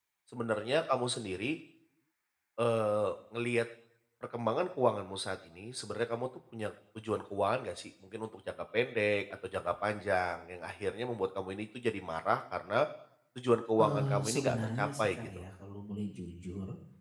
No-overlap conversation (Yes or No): No